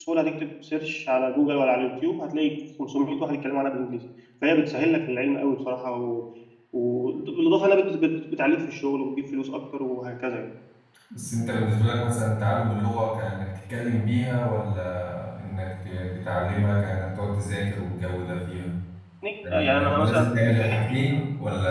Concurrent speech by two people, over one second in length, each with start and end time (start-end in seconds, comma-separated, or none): 19.5-20.8